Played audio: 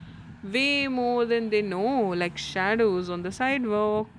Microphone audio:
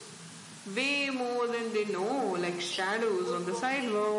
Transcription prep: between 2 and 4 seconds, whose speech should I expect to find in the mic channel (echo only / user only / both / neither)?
both